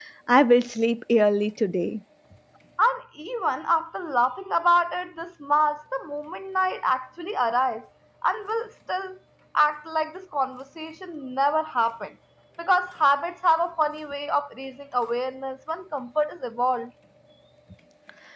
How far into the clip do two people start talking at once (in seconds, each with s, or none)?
none